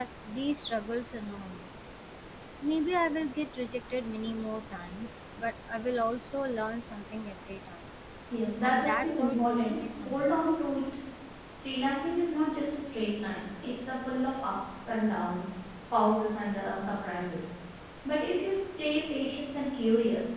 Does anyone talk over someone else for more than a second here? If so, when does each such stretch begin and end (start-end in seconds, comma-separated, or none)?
8.6-10.4